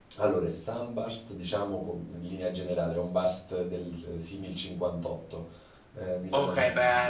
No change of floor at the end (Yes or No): No